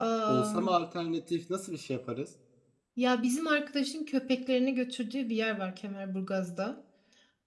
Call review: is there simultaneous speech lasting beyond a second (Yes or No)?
No